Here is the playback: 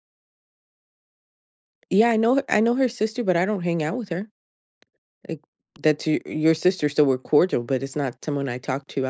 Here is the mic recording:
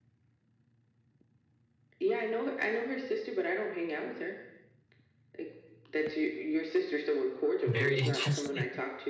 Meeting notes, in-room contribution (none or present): present